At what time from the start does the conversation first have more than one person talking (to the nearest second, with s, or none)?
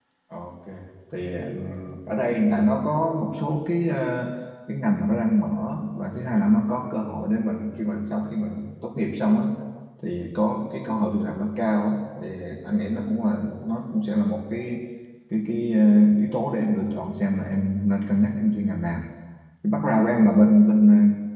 none